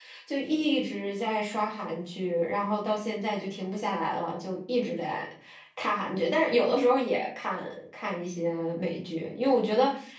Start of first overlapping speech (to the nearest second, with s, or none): none